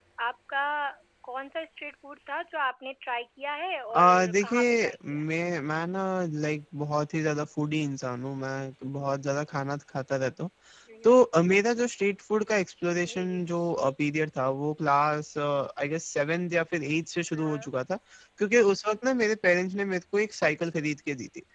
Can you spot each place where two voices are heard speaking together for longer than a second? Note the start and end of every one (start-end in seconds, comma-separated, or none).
3.9-5.2